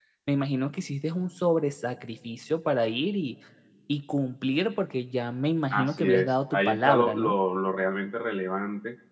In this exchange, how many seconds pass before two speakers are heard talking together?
5.7 s

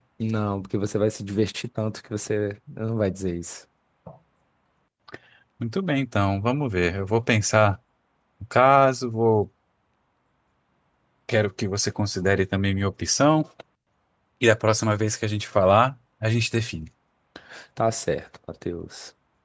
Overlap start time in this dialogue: none

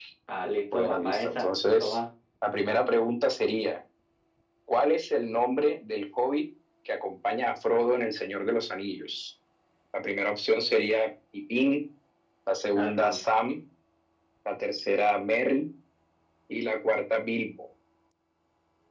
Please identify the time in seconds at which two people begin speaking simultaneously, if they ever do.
0.7 s

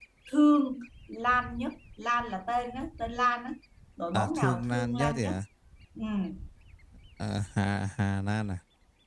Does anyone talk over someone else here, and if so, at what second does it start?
4.1 s

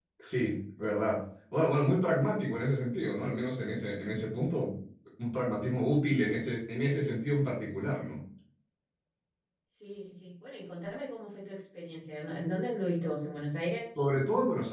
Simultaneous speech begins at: none

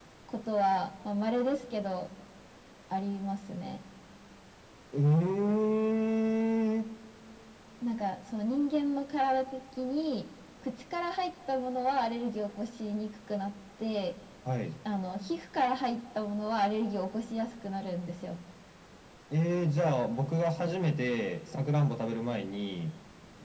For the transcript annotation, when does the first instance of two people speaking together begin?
none

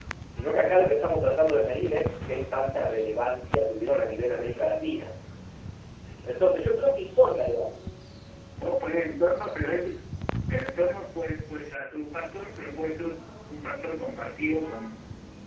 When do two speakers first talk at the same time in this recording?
none

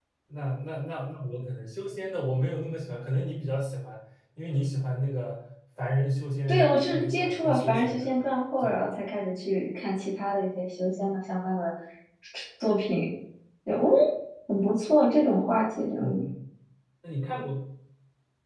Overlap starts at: 6.5 s

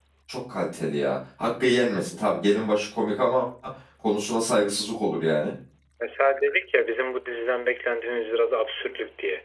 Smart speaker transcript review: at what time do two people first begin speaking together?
none

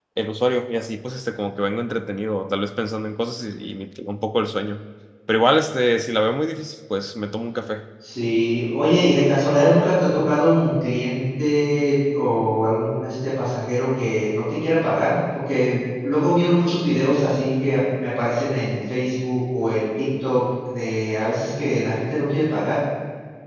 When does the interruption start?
none

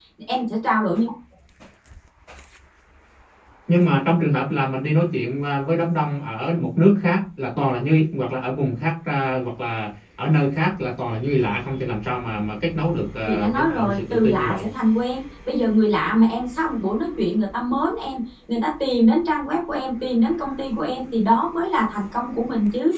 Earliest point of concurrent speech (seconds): 13.2 s

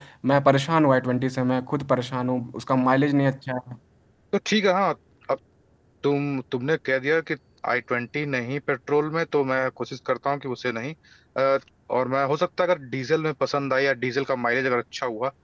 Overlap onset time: none

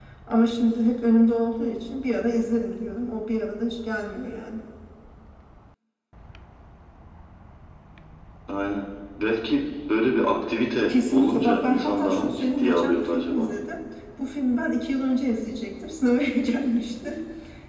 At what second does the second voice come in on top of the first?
10.7 s

